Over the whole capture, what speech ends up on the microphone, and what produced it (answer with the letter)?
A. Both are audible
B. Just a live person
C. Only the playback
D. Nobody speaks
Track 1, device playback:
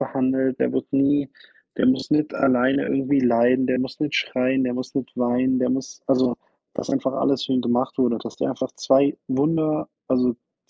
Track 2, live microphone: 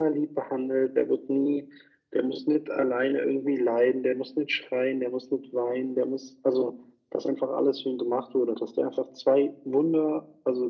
C